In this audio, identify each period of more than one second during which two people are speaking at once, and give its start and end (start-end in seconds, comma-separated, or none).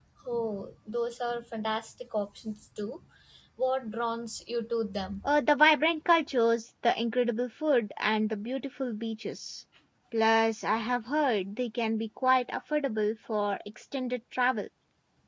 none